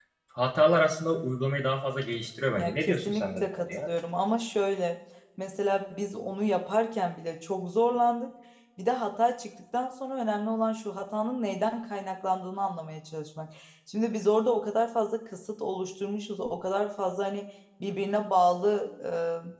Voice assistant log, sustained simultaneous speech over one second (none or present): present